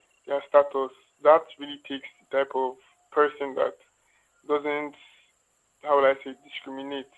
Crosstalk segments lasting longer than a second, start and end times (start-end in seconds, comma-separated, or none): none